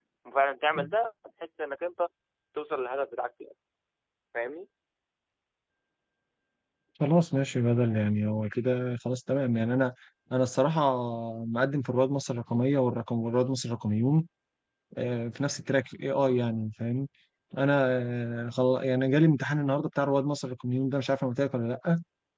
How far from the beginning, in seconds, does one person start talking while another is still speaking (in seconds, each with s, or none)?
none